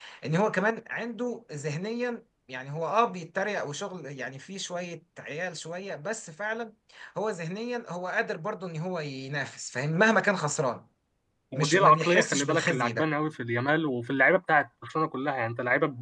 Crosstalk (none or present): present